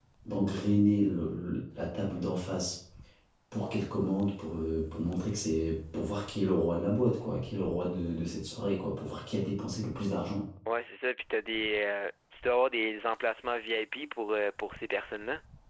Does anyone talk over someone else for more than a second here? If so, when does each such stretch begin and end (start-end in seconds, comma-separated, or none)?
none